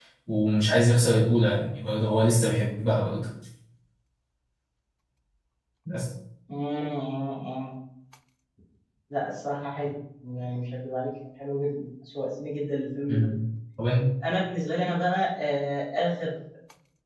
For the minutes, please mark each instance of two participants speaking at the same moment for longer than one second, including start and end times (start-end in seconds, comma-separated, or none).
none